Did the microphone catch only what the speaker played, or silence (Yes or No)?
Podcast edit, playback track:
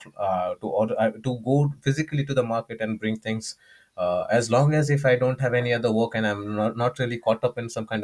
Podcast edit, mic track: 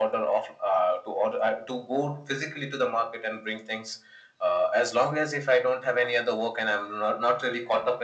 Yes